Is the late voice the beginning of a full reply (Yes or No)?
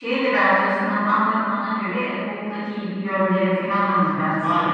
Yes